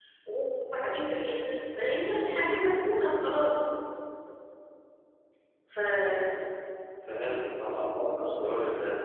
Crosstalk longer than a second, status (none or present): none